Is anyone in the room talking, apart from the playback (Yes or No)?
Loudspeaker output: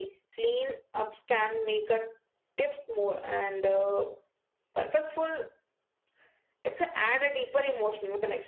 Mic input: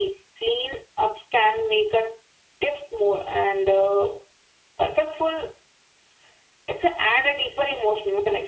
No